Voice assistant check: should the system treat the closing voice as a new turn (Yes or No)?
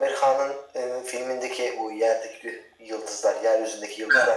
No